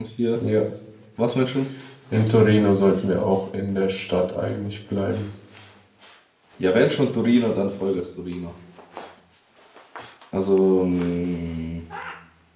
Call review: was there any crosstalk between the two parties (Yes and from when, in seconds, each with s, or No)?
No